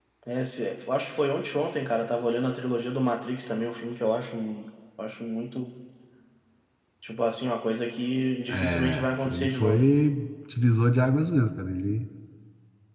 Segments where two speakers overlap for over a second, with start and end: 8.5-9.8

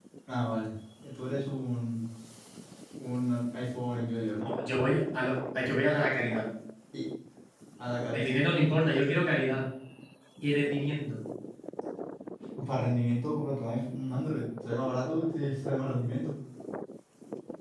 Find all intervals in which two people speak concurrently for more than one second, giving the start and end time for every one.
none

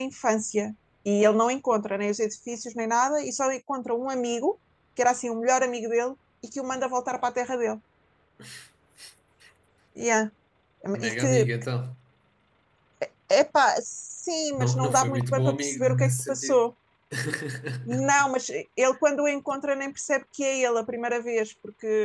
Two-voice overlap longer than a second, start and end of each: 14.6-16.6

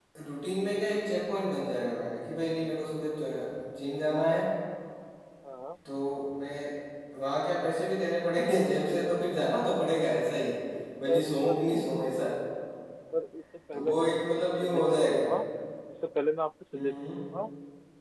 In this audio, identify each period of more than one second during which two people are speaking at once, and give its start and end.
13.7-15.3

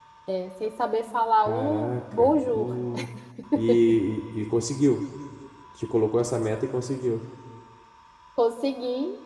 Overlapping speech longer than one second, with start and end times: 1.4-2.7

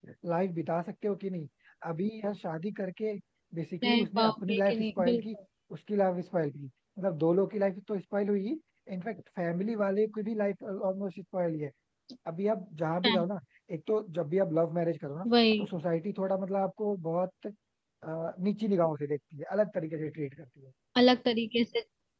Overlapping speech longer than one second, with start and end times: 3.8-5.2

